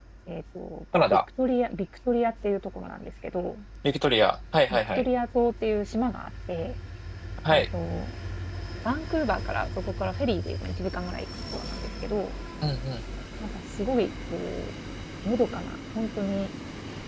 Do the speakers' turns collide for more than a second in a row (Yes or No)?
No